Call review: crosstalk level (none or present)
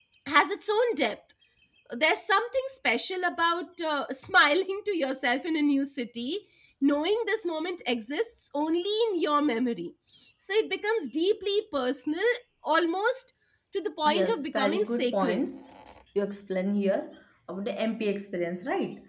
present